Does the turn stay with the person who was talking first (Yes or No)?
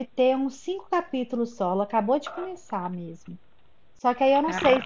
Yes